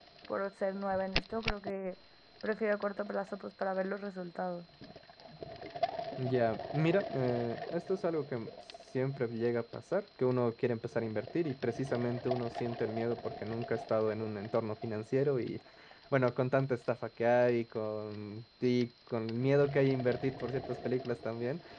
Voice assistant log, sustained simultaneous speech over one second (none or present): none